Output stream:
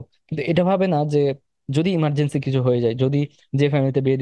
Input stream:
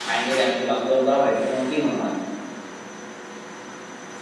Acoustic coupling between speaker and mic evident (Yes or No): No